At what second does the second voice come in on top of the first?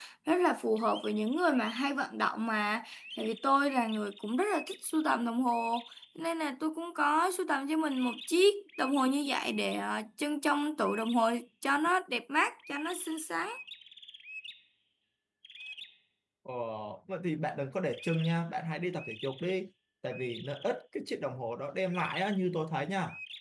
none

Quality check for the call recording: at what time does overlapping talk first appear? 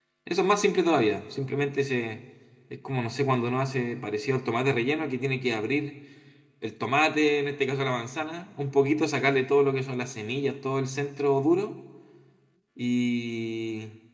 none

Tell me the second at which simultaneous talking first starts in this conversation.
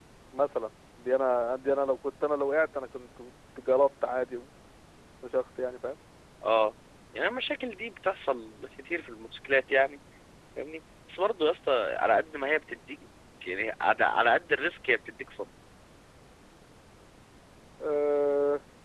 none

